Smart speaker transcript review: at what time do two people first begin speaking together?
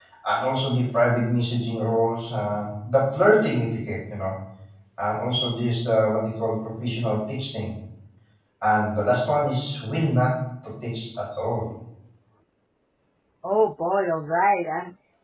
none

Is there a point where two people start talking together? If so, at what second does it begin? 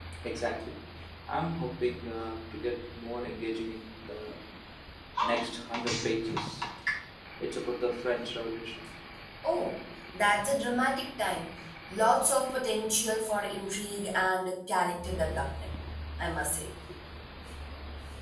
none

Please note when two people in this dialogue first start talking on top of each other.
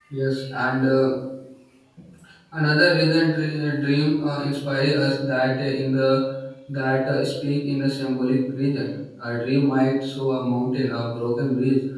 none

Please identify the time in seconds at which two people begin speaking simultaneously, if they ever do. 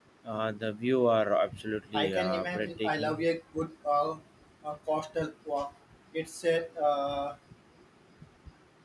2.0 s

